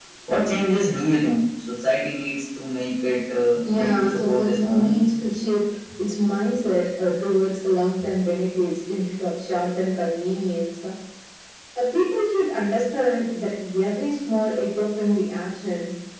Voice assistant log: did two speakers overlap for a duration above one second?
Yes, from 3.6 s

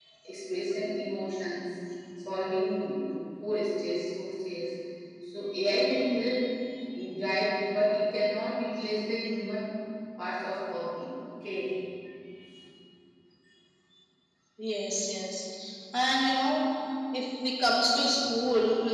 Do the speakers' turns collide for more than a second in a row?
No

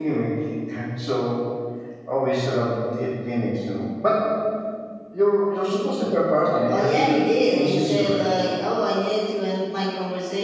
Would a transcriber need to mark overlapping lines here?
Yes, from 6.7 s

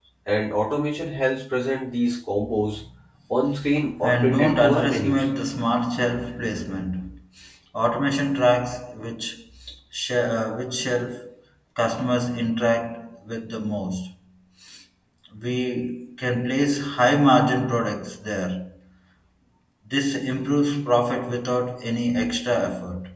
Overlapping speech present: Yes, from 4.0 s

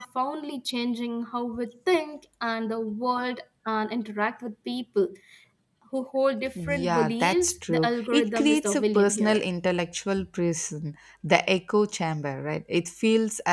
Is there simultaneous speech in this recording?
Yes, from 6.7 s

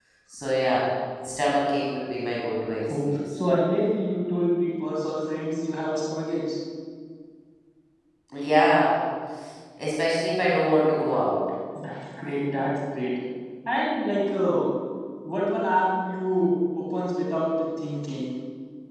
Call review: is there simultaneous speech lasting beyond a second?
No

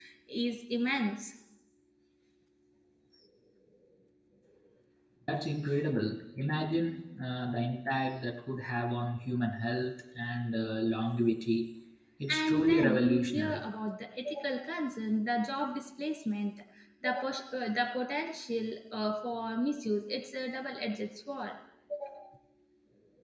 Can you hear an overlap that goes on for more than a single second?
Yes, from 12.3 s

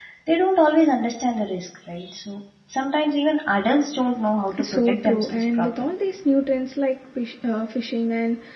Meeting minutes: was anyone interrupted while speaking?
Yes, from 4.5 s

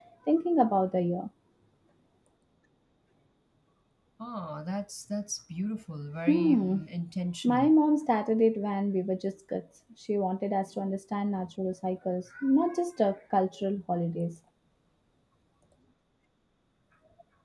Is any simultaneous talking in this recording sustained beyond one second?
No

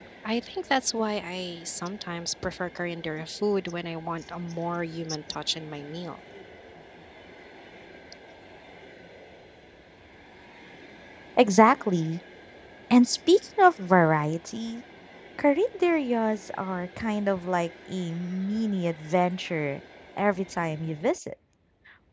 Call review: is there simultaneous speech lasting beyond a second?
No

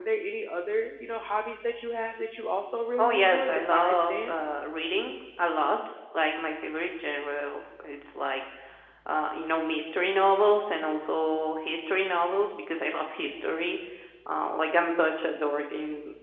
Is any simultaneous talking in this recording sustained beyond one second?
Yes, from 3.0 s

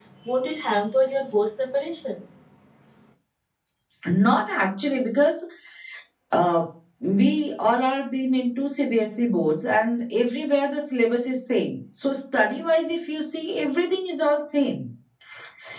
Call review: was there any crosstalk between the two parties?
No

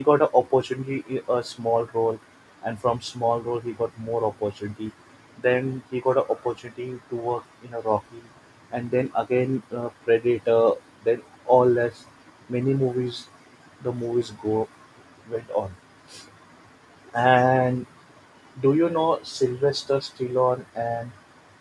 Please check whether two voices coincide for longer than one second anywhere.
No

